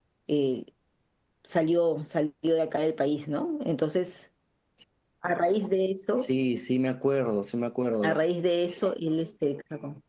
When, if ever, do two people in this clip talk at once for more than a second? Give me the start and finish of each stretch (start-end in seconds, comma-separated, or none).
none